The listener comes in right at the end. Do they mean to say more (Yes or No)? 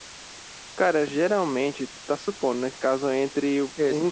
No